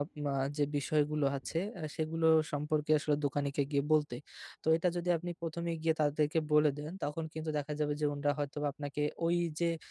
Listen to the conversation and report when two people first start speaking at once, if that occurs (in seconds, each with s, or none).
none